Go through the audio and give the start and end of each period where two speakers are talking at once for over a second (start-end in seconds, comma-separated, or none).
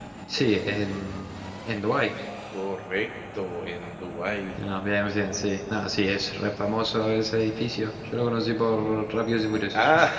none